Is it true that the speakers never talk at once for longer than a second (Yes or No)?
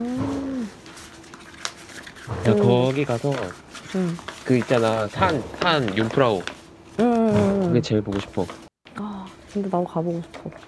Yes